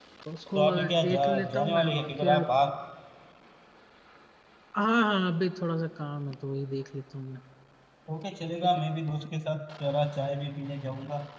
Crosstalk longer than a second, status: present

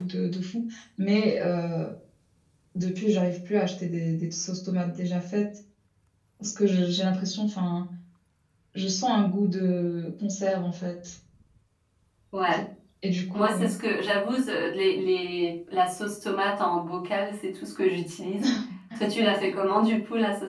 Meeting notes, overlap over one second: none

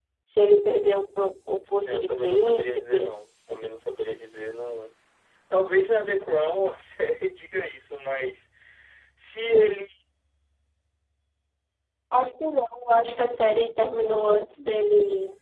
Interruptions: present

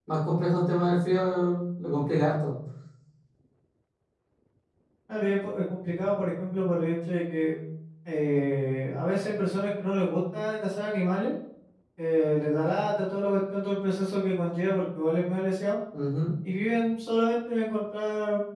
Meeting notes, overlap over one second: none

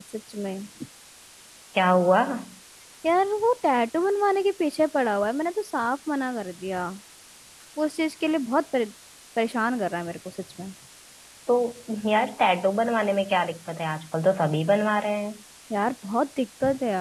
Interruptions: none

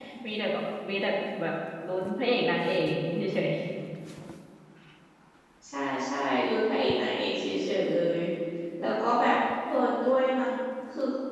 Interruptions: none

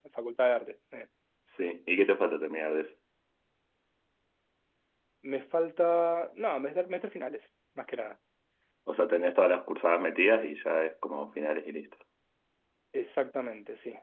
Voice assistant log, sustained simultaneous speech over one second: none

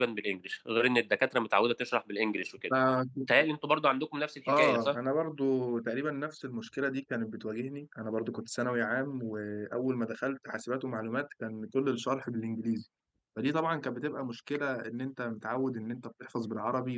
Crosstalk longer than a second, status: none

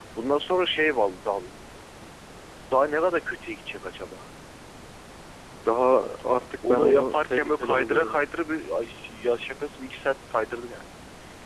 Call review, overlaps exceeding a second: present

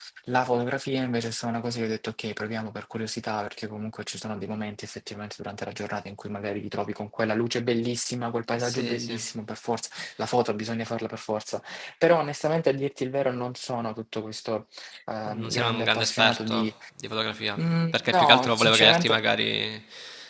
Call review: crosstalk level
present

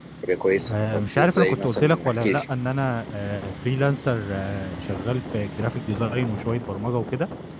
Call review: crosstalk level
present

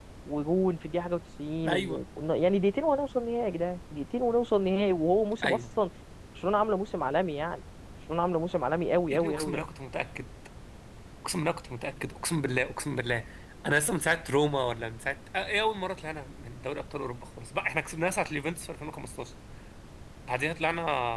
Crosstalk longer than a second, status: none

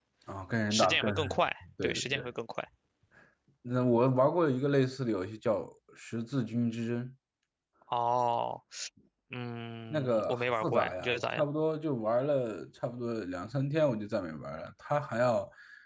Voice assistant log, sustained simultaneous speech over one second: present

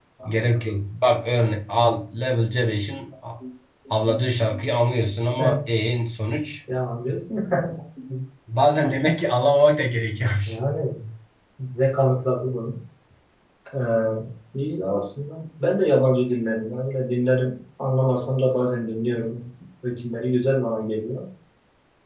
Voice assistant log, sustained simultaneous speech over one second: none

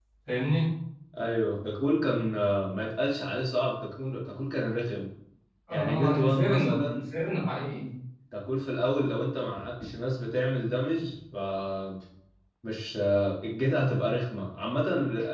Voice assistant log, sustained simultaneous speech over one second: present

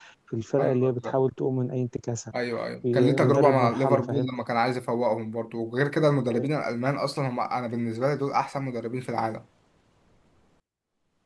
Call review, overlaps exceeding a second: present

